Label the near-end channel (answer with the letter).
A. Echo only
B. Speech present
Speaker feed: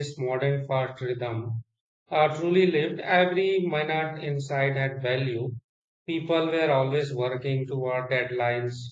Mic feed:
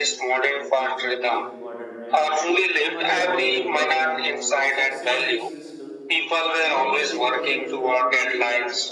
B